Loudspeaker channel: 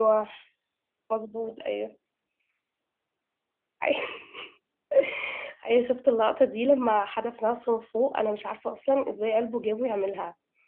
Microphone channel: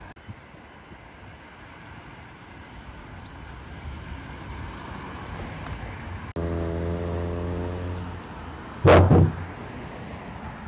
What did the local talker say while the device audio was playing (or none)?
الله يرحمه.